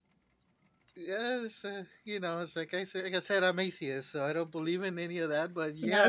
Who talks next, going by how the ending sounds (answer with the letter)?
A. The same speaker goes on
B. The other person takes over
B